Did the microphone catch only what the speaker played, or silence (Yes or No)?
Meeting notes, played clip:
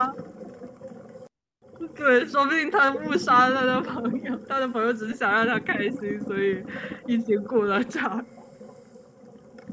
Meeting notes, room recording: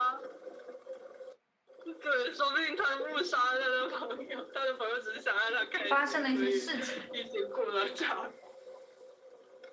No